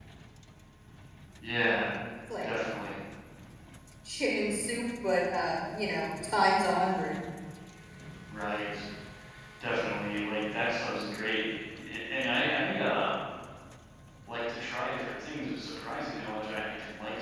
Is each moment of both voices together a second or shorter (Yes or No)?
Yes